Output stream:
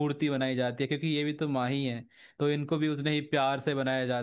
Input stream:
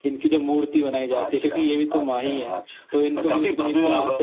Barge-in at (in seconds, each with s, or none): 1.2 s